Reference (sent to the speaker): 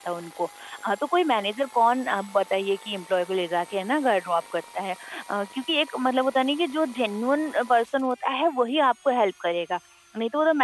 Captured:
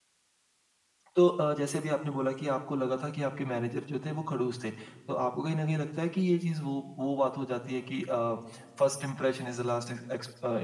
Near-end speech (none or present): present